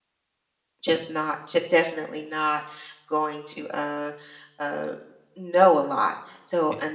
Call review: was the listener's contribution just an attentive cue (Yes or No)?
Yes